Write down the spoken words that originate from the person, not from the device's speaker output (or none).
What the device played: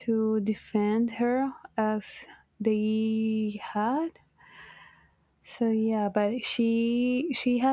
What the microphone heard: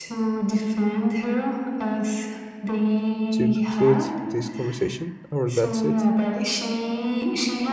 to conclude this conversation, or that's it.